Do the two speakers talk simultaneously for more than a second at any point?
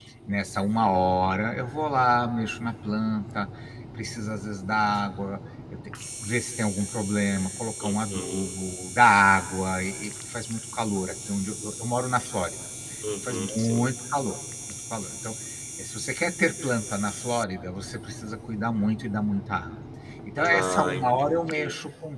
Yes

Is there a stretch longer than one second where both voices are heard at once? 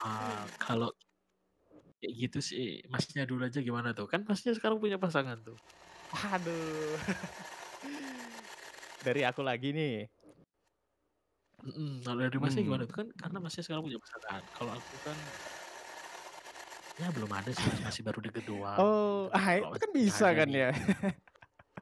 Yes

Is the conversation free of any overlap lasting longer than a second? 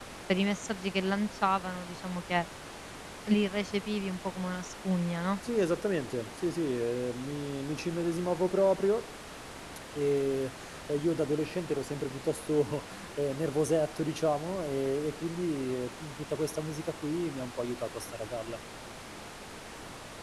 Yes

